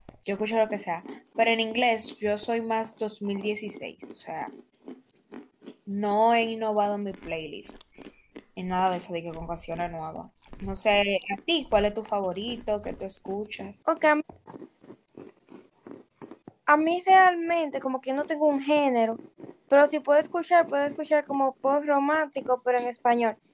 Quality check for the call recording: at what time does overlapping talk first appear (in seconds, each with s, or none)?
none